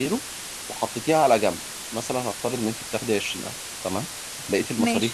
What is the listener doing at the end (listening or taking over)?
listening